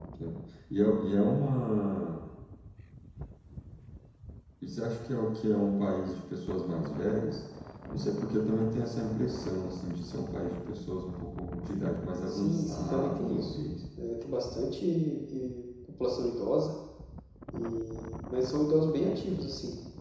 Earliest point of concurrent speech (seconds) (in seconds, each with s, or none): 12.3 s